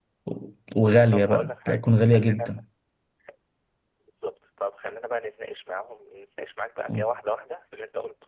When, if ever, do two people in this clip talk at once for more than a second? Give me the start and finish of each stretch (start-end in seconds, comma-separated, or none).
1.1-2.6